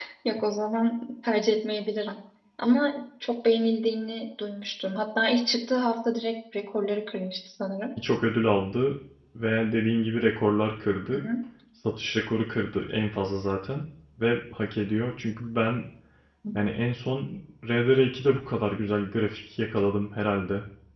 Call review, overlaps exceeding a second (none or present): none